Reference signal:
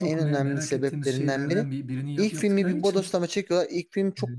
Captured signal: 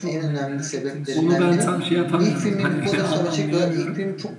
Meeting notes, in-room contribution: present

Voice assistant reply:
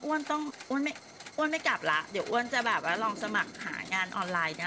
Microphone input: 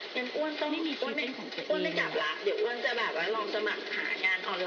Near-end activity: present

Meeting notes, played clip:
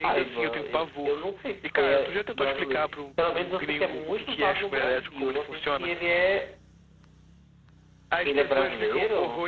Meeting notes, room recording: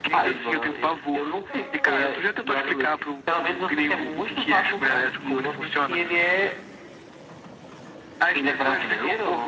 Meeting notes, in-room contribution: none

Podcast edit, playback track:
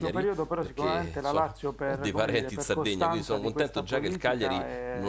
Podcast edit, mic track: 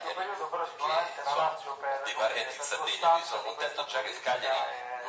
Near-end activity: none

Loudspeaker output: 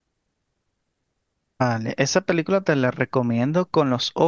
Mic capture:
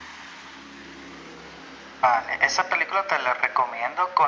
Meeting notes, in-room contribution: none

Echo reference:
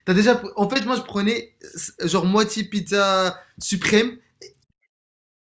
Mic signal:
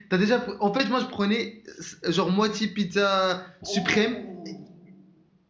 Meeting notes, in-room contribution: present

